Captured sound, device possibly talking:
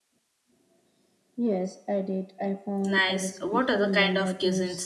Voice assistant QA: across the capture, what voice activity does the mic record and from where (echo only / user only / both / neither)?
both